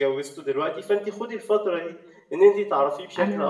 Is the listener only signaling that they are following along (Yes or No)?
Yes